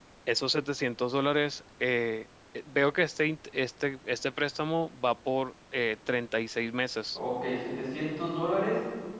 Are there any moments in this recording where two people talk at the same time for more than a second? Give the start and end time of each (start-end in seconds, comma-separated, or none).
none